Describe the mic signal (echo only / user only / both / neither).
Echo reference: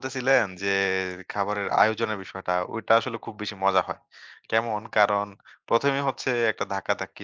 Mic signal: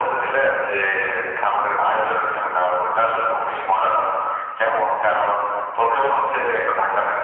echo only